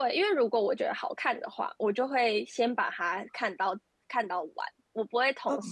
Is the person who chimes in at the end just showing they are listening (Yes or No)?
Yes